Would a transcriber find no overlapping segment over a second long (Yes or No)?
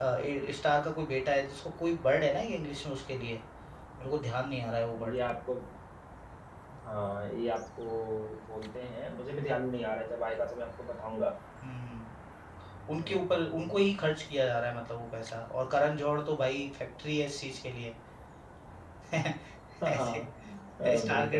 Yes